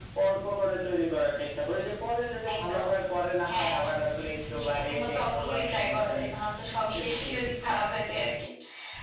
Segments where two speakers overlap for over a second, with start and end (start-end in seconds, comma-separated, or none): 4.6-6.3